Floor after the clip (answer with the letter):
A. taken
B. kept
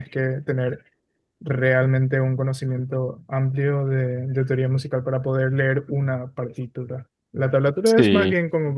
B